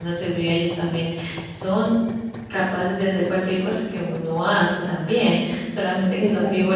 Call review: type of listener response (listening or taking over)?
listening